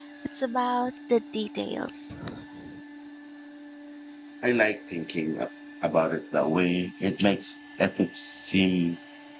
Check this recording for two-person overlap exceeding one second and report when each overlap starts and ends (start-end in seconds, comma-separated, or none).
none